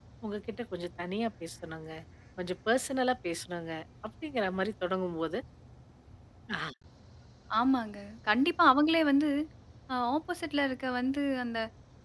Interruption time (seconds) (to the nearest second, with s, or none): none